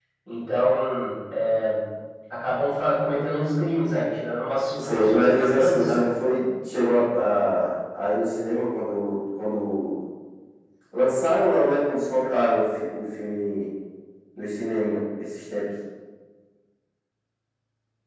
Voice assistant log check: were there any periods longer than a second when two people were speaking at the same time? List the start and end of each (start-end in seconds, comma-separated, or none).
4.8-6.1